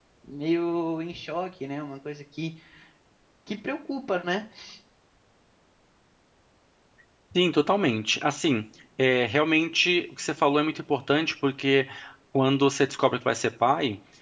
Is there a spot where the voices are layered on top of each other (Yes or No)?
No